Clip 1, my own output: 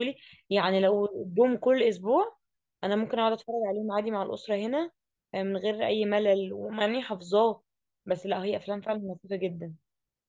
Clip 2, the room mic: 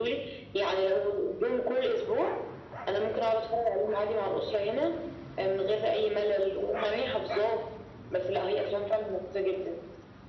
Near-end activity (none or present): none